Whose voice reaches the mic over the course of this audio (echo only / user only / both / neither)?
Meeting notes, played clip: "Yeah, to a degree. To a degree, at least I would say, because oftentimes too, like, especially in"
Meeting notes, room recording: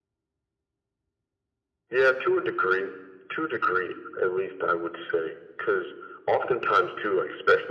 echo only